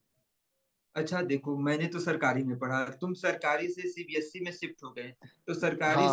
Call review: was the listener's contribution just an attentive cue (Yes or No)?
Yes